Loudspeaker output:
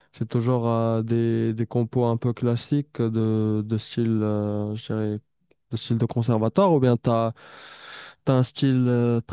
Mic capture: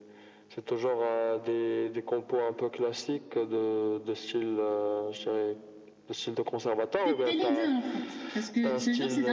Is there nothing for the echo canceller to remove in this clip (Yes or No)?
No